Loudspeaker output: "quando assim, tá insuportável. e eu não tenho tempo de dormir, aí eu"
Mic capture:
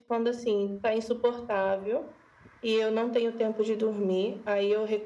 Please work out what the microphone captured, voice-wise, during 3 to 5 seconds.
echo only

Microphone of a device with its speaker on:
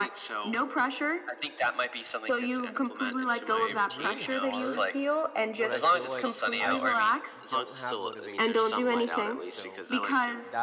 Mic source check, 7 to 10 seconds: both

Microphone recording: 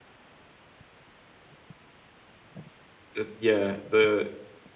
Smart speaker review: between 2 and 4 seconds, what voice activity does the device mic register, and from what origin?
user only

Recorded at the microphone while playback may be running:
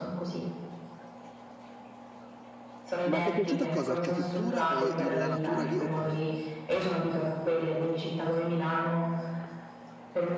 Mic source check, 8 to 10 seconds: echo only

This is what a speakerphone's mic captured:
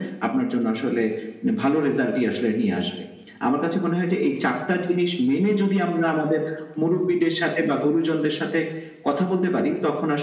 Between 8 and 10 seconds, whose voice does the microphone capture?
echo only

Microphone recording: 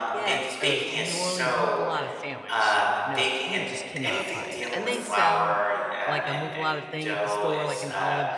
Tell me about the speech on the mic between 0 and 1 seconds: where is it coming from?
both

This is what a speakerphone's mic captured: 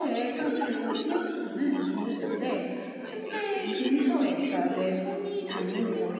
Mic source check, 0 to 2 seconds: both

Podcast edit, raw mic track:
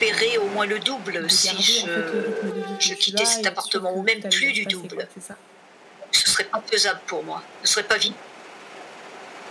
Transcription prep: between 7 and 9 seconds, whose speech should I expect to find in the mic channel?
echo only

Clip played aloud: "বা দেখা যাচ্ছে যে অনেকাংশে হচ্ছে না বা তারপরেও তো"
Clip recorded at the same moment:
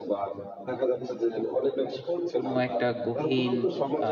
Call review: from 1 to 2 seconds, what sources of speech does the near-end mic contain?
echo only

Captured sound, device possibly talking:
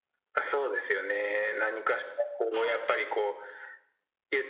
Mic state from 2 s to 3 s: both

